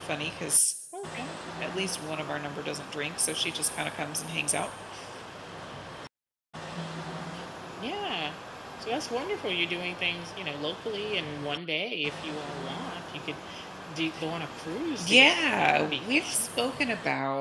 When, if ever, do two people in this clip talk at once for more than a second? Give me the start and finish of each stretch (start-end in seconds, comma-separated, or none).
15.0-16.5